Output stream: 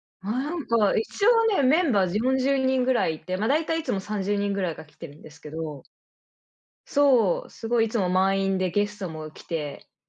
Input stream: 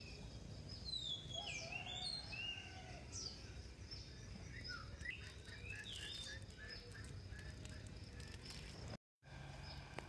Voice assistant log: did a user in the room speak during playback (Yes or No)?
No